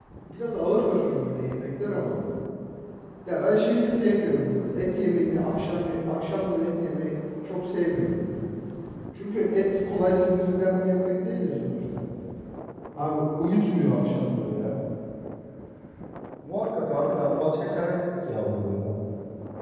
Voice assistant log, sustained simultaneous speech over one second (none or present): none